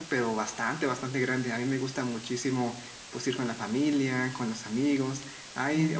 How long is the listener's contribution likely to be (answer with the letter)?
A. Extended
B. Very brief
B